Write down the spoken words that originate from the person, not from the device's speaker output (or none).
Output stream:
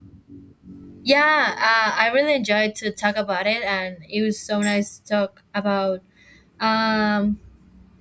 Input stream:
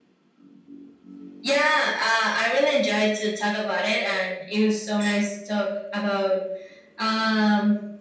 none